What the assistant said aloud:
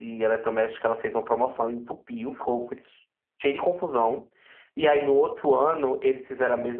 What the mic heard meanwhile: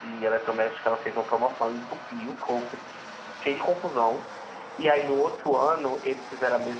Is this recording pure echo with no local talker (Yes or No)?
Yes